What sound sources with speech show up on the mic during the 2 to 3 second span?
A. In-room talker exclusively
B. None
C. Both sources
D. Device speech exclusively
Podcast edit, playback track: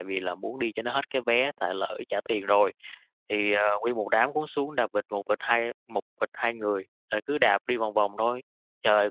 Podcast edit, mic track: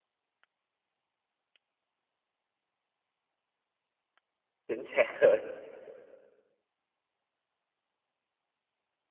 B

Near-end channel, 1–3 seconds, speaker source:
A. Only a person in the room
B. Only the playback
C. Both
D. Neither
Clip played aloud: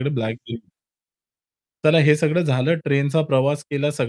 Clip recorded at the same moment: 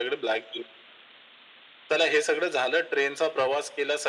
B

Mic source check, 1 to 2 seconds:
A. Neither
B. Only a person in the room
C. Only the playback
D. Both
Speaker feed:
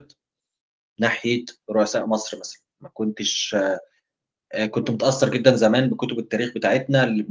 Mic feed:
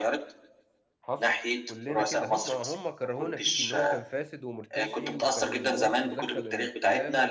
D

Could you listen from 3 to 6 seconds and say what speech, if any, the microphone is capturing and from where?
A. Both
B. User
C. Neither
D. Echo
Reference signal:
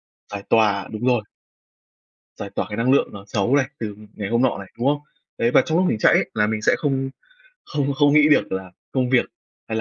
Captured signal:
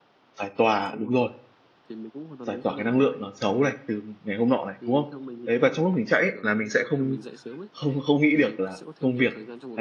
A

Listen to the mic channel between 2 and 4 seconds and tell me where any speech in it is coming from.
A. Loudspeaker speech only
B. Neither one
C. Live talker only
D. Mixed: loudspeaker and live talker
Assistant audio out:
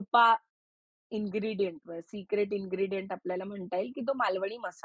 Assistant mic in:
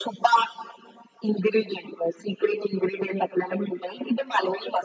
A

